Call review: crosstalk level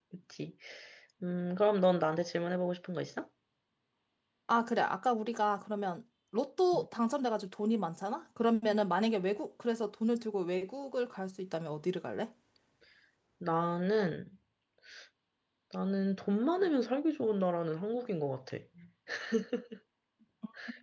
none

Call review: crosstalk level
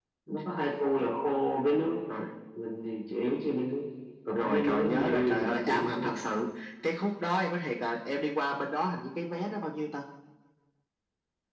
present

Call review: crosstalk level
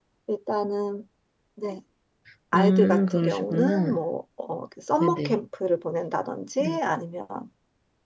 present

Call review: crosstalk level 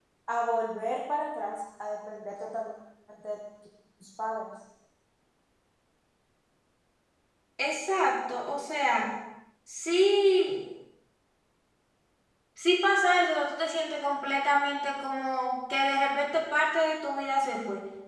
none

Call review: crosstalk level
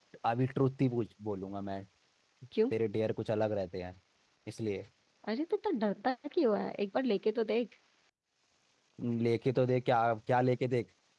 none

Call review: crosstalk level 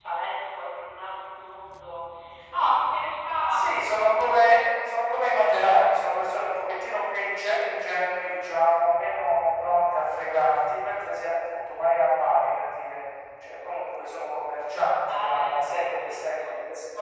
present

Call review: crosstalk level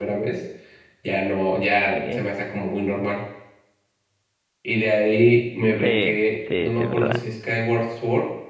present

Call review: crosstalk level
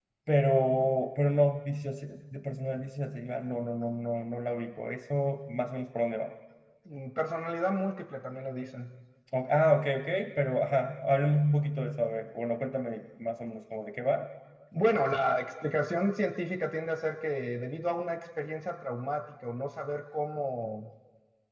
none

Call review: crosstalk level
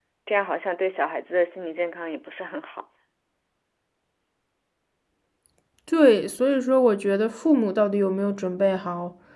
none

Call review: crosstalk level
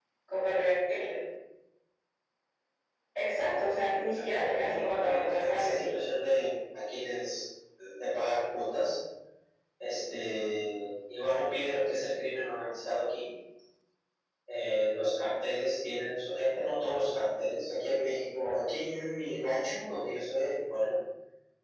present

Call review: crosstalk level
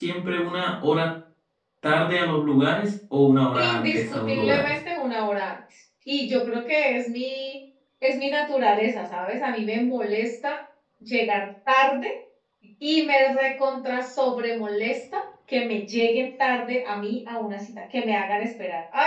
present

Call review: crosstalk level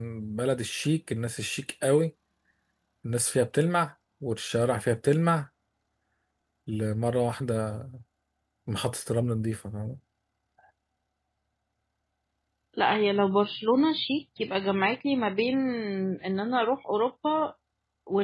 none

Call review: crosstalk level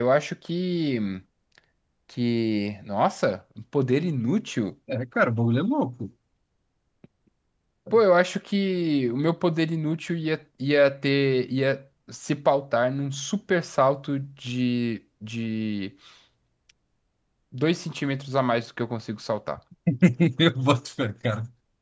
none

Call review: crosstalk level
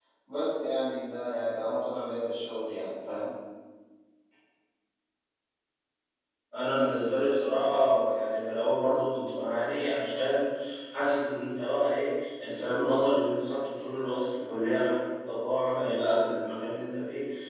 none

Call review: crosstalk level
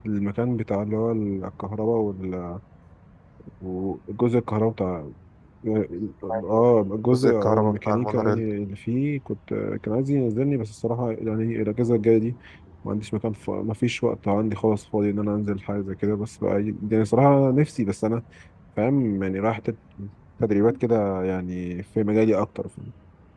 present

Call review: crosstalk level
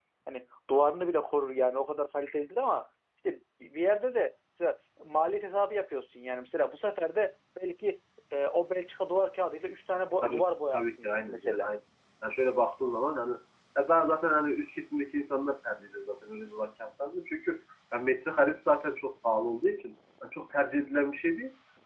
present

